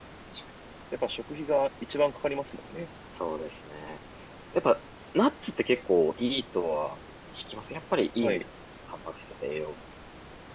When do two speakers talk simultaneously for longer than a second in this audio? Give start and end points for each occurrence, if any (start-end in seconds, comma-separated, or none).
none